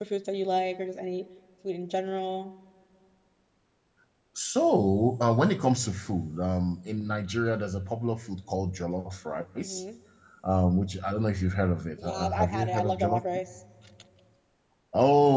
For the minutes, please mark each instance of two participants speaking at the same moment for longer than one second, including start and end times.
12.0-13.2

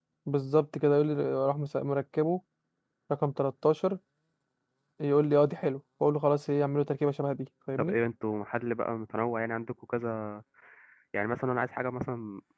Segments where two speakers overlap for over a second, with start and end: none

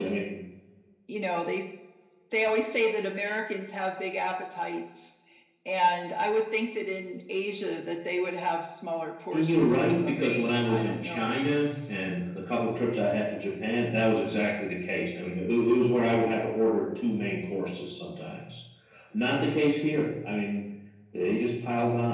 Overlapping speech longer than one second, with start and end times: 9.3-11.4

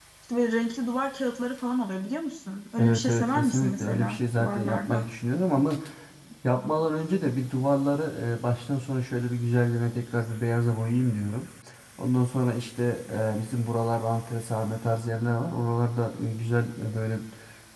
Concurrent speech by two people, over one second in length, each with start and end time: 2.8-5.0

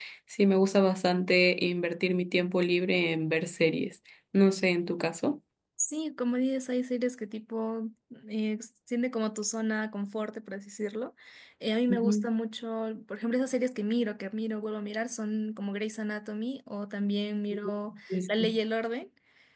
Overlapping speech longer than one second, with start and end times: none

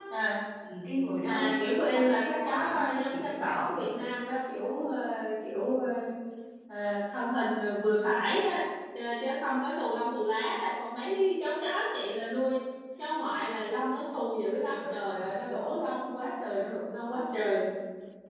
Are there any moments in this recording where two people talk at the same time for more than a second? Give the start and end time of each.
1.2-3.6

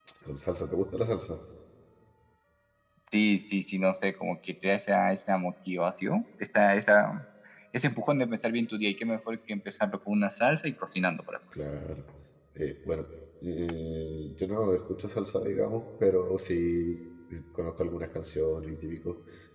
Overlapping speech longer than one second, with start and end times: none

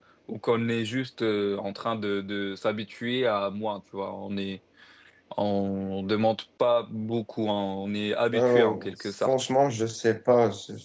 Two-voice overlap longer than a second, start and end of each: none

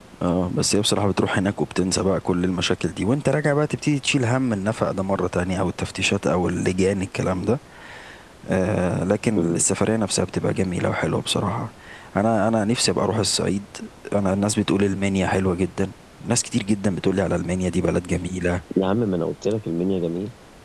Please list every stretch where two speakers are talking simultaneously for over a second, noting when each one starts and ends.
none

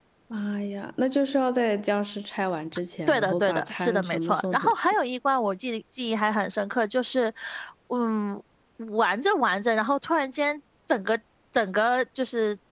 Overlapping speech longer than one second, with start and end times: 3.1-4.8

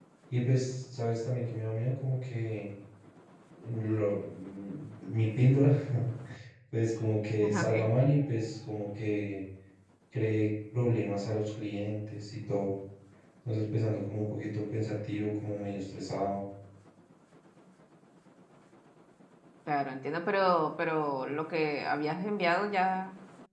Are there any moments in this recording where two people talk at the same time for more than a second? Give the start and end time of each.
none

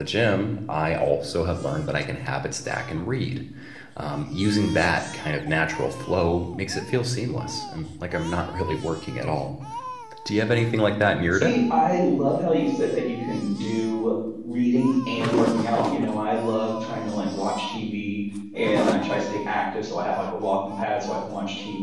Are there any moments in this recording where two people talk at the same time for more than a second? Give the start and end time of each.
none

